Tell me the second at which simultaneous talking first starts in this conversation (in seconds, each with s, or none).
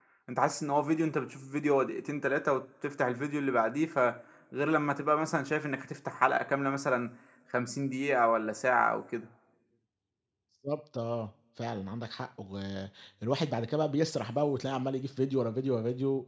none